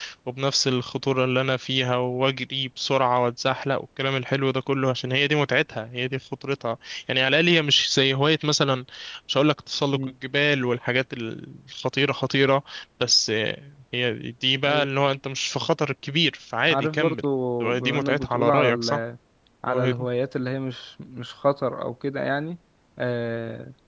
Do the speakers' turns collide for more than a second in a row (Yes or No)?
Yes